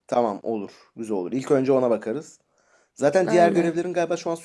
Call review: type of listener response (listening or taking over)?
listening